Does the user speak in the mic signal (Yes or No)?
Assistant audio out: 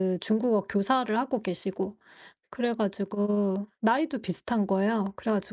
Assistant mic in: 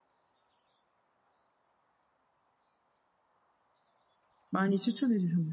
Yes